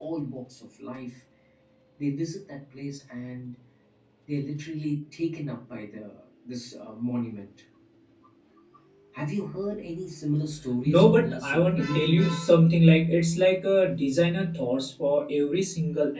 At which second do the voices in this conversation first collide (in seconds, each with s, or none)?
10.8 s